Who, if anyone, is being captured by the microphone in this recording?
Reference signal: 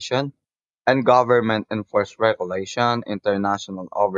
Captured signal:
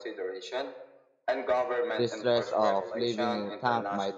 both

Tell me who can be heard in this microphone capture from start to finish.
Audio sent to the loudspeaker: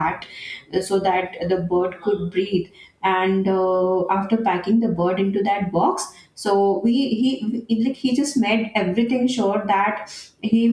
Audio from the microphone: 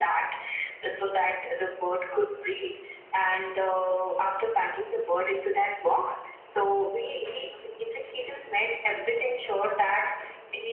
echo only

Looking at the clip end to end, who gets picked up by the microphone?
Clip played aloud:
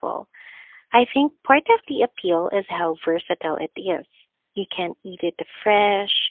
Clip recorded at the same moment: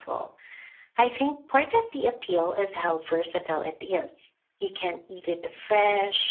echo only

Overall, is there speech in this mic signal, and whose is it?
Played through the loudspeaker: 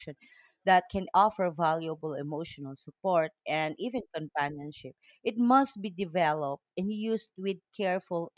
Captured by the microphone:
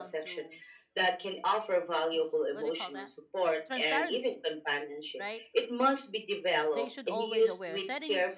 both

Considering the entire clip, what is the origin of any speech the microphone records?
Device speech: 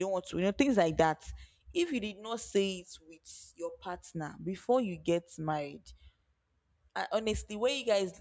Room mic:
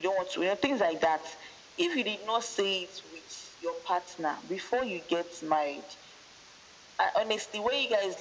echo only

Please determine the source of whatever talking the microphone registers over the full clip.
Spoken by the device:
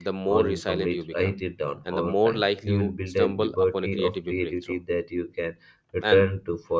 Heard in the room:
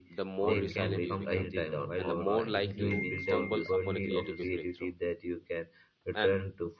both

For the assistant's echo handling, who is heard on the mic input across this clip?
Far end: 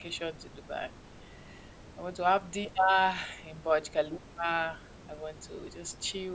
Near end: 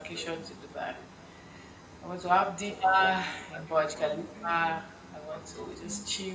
both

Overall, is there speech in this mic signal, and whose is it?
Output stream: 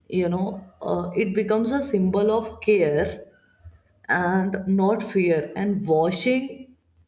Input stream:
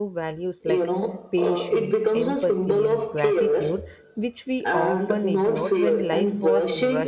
both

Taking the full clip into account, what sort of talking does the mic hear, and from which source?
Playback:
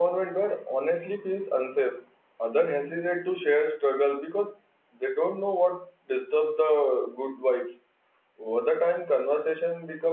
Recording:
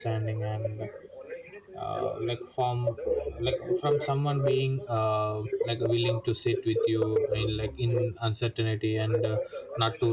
both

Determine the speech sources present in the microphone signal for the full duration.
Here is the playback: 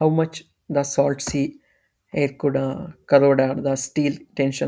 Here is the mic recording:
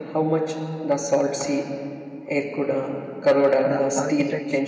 both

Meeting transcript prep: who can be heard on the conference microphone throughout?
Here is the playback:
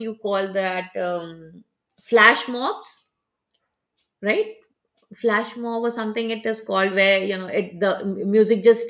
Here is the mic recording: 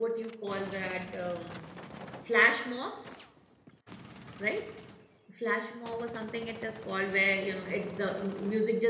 echo only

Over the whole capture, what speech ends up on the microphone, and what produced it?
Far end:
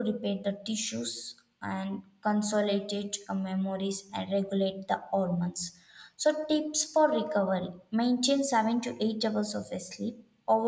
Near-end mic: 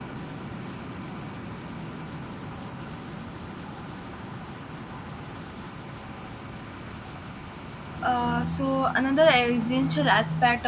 user only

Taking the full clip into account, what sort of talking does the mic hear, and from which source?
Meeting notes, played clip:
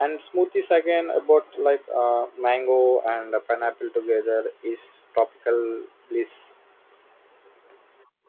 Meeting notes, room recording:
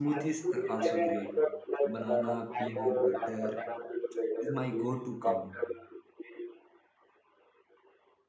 both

